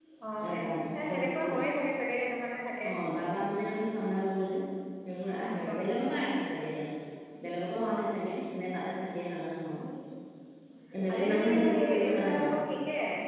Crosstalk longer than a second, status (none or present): present